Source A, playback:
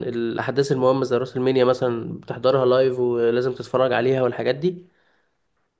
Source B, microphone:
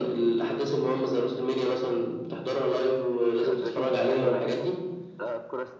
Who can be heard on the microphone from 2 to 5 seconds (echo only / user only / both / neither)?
both